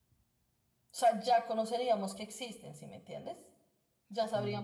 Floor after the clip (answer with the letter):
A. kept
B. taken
A